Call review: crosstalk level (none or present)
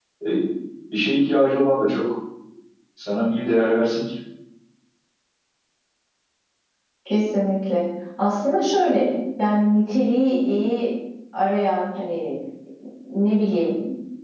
none